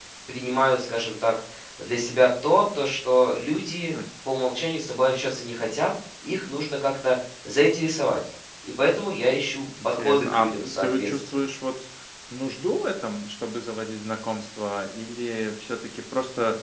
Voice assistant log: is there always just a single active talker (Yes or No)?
No